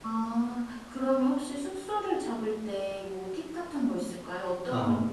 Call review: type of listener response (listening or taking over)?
taking over